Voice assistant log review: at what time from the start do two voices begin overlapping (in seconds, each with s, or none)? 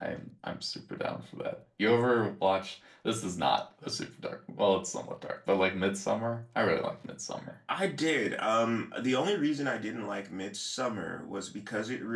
none